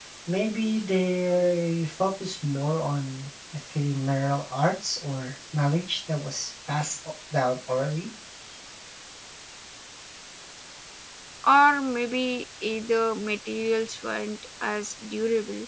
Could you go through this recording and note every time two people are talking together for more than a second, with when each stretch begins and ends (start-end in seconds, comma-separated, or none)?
none